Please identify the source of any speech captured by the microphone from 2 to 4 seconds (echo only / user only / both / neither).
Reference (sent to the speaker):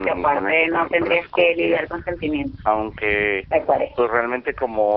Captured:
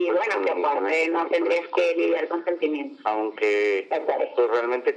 echo only